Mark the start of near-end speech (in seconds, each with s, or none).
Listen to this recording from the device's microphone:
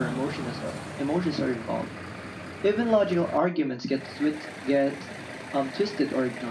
none